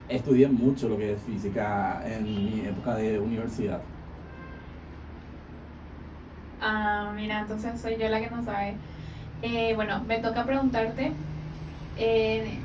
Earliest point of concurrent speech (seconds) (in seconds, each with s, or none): none